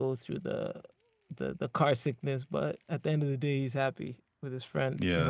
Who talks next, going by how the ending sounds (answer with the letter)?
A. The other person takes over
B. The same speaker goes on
A